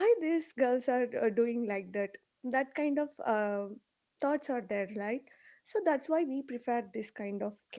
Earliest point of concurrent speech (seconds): none

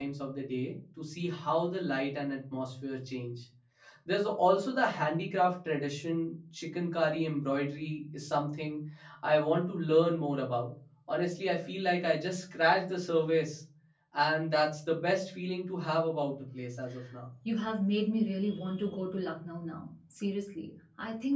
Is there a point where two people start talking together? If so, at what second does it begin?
none

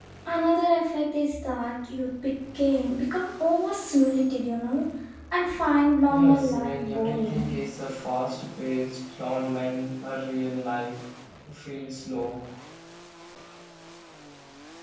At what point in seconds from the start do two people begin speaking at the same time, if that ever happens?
6.1 s

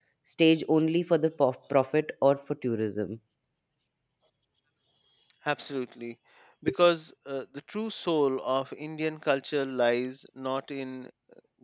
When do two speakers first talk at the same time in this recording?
none

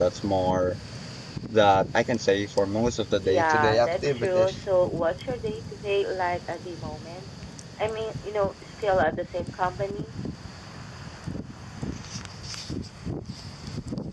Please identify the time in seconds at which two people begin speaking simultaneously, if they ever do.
3.2 s

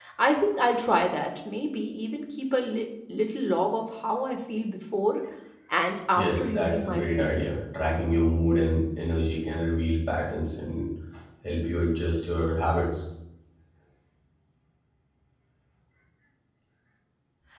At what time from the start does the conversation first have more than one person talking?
6.2 s

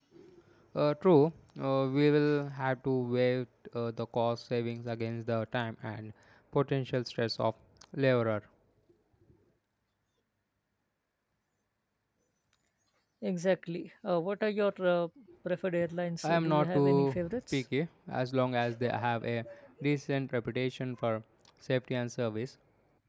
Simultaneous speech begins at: 16.2 s

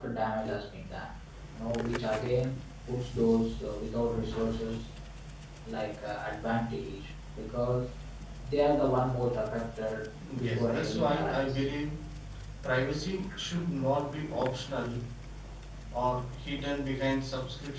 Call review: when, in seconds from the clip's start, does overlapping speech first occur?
10.4 s

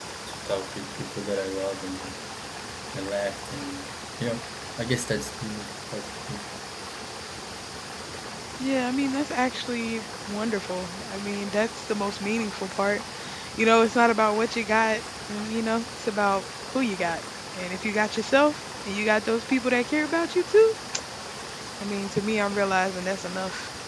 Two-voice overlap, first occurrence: none

